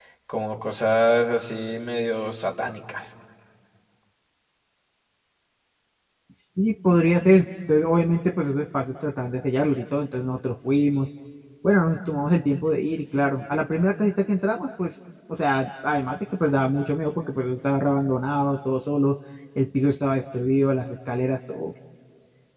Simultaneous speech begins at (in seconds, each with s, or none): none